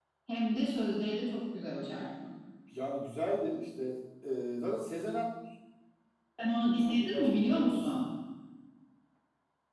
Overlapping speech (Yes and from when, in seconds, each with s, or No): Yes, from 6.7 s